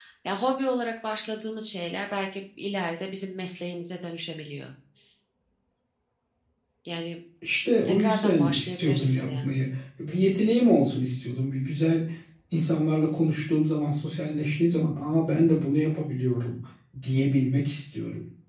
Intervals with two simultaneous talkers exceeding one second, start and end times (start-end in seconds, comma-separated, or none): 7.8-9.5